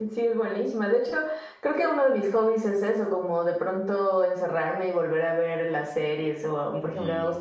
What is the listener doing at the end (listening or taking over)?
listening